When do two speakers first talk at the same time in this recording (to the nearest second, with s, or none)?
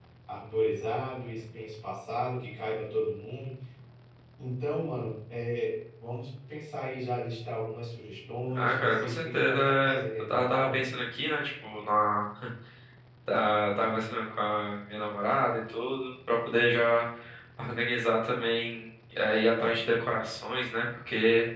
8 s